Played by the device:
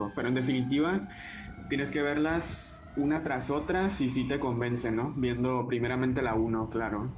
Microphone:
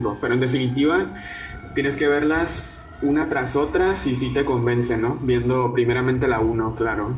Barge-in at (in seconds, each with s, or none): none